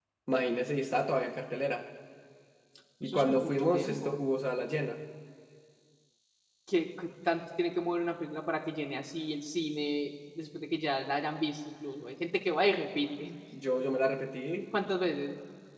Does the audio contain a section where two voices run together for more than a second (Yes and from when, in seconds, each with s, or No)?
Yes, from 3.0 s